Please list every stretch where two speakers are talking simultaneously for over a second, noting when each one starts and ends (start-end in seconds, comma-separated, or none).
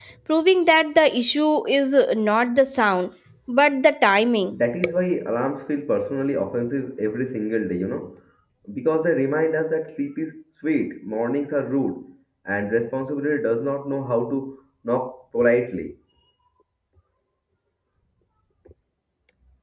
none